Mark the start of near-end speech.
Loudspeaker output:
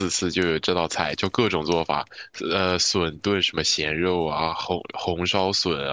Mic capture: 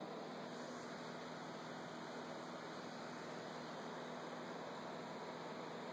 none

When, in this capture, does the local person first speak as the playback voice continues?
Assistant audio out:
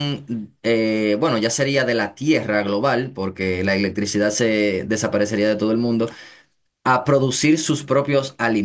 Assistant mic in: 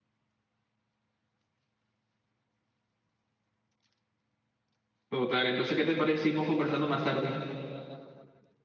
5 s

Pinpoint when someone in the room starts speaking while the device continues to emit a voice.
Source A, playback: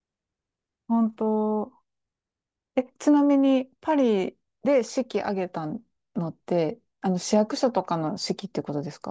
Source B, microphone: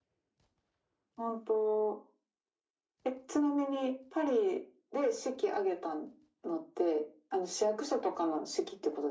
none

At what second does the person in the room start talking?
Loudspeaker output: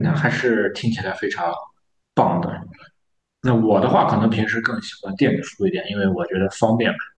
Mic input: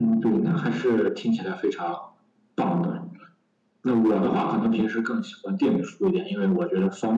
none

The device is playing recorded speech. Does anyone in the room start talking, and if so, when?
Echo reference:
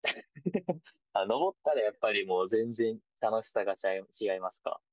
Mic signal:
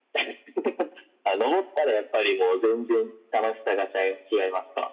none

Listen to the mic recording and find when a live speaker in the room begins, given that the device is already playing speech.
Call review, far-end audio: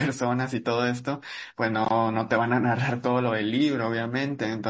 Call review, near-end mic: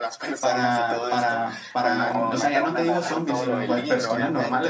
0 s

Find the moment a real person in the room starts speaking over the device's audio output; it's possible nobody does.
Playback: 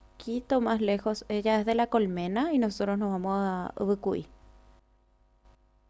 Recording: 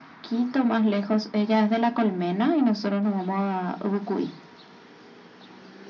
none

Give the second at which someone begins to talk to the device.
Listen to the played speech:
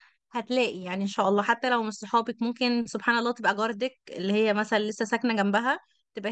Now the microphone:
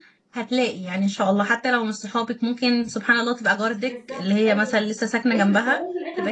4 s

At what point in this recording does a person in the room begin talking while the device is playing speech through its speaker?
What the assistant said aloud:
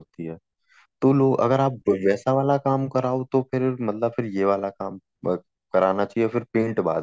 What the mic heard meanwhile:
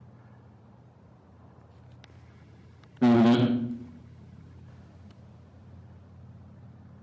3 s

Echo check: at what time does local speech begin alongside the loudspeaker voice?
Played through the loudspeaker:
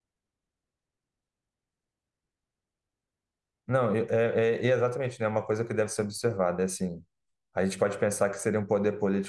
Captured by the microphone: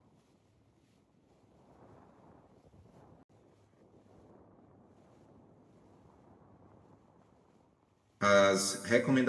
8 s

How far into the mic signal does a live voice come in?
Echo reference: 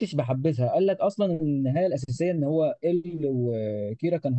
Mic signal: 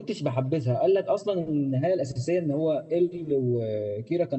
none

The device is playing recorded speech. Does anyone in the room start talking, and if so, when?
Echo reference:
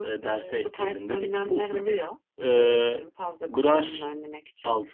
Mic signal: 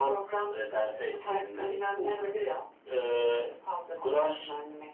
none

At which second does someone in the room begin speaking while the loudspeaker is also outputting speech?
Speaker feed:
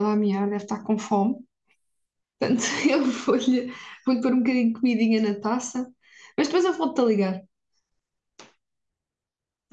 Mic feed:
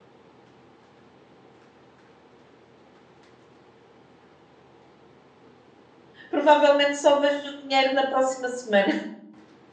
6 s

